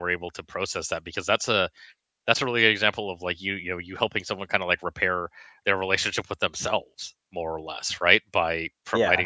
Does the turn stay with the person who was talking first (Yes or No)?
Yes